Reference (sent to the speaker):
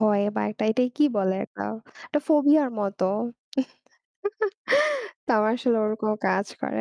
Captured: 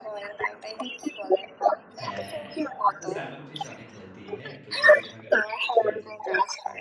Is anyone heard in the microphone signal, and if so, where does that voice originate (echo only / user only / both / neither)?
both